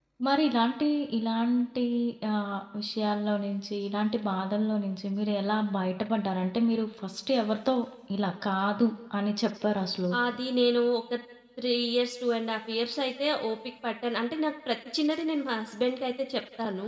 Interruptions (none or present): none